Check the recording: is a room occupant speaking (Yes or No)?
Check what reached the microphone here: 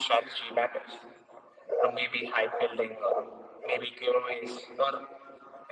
No